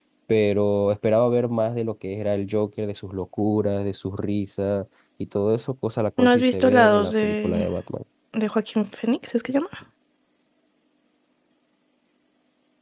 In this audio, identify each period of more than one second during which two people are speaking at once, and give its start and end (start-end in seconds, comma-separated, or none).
6.2-7.7